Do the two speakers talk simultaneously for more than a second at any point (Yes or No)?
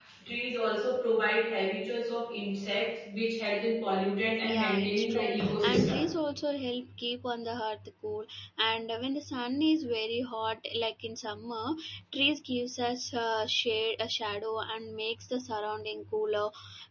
Yes